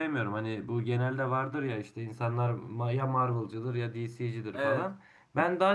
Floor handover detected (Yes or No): No